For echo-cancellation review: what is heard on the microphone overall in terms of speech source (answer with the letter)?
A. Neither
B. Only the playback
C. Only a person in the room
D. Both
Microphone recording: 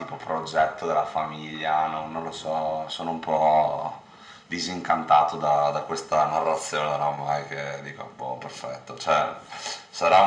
B